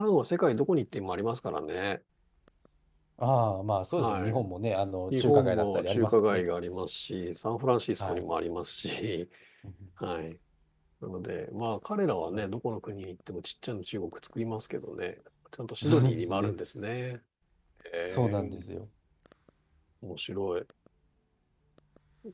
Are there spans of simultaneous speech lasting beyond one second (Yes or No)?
Yes